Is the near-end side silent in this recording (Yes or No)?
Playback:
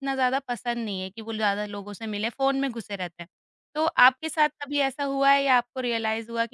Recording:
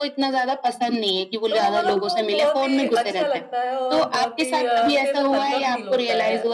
No